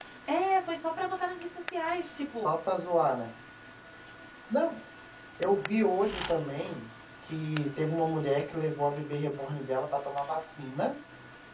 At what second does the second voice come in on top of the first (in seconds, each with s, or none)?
none